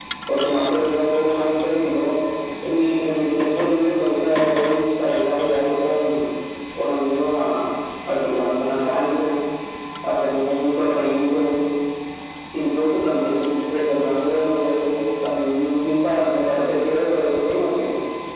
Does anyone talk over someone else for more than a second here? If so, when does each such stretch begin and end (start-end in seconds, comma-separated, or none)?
none